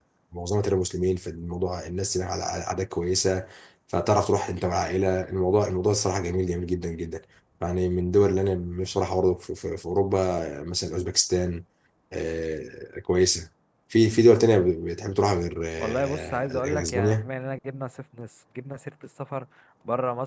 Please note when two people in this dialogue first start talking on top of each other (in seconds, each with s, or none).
15.8 s